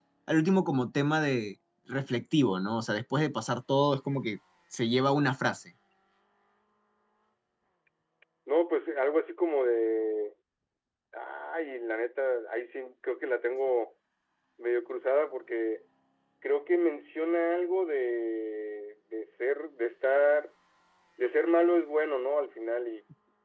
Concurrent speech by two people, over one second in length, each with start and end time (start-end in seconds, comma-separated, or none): none